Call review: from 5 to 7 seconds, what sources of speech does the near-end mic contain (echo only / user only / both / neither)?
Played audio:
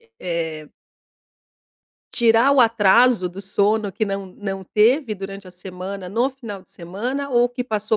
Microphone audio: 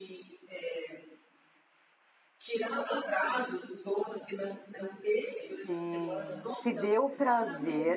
both